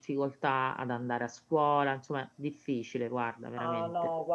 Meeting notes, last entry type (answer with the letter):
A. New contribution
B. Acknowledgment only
A